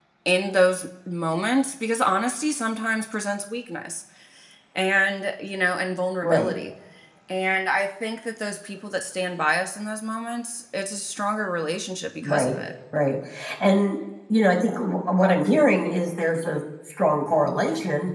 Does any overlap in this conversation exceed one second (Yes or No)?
No